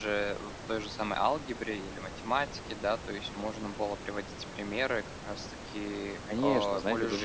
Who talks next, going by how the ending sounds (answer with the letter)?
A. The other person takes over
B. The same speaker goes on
A